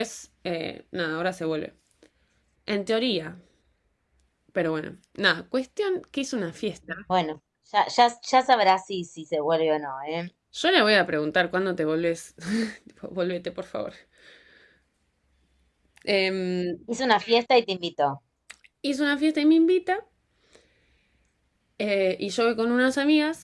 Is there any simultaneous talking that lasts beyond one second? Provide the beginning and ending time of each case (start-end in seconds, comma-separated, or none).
none